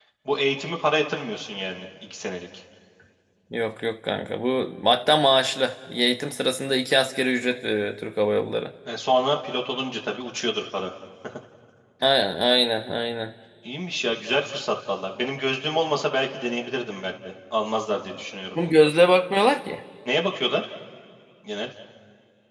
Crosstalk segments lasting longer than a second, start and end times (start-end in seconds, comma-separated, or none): none